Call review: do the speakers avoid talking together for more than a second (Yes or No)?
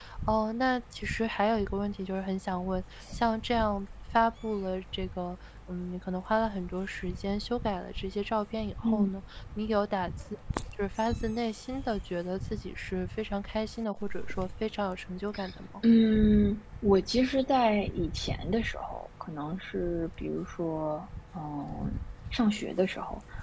Yes